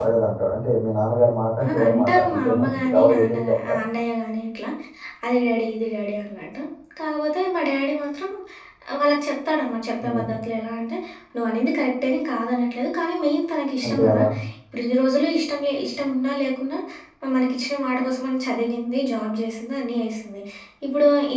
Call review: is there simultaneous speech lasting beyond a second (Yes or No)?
Yes